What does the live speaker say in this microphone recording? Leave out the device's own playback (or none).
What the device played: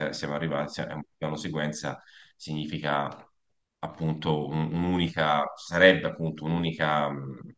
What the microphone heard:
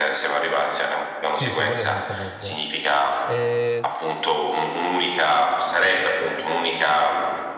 Sì, sì, quello senza dubbio. Eh,